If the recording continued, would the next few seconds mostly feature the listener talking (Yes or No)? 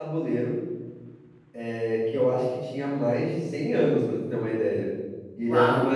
No